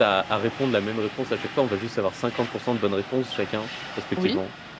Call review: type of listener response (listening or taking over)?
listening